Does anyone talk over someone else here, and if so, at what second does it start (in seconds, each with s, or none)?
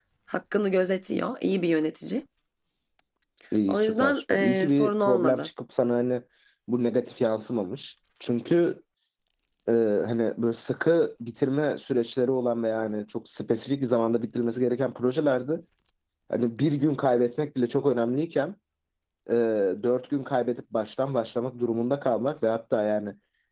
3.7 s